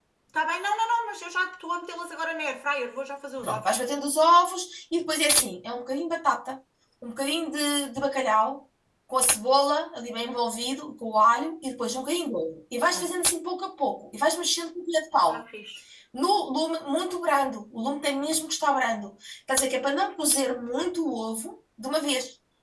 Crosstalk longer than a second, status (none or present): none